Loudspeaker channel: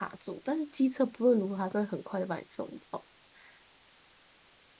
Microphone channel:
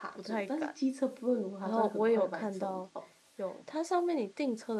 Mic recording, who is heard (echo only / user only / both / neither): both